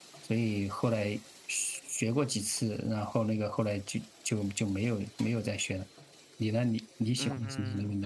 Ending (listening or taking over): taking over